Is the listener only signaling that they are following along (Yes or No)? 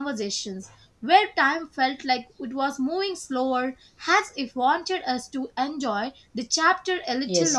No